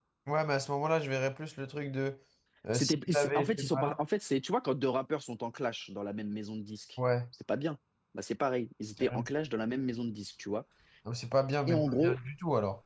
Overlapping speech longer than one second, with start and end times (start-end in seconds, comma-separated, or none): 2.7-4.0